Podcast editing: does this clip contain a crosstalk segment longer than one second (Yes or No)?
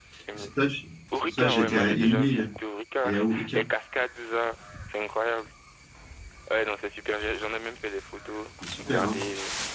Yes